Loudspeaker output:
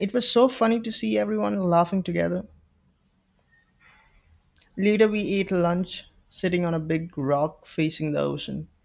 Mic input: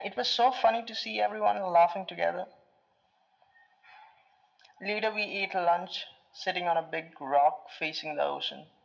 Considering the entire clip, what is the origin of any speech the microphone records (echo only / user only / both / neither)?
echo only